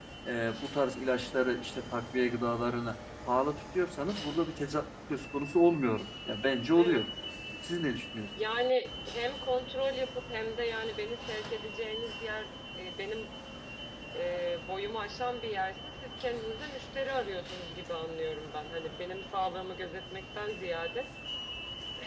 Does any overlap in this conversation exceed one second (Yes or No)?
No